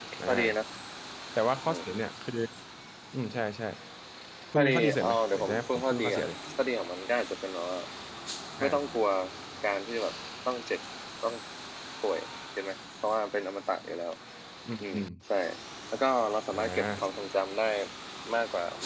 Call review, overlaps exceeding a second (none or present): present